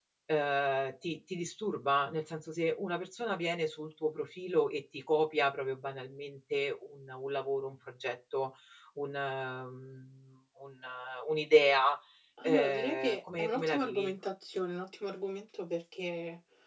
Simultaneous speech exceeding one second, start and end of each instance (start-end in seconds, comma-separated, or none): 12.4-14.1